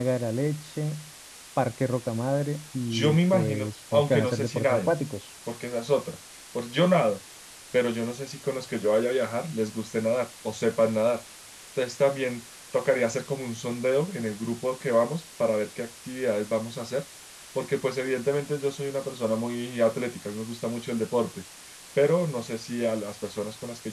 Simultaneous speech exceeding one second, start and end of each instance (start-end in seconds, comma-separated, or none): 2.9-4.9